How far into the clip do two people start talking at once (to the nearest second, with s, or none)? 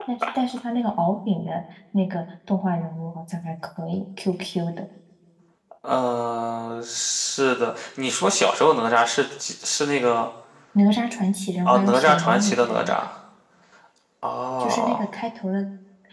12 s